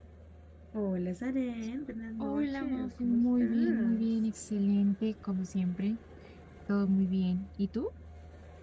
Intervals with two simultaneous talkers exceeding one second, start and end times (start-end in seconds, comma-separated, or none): 2.2-4.1